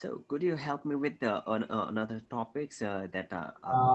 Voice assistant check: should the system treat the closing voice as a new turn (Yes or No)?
Yes